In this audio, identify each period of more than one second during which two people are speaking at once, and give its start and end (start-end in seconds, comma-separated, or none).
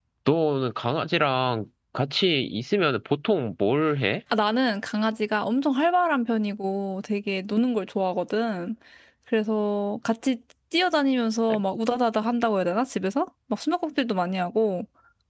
none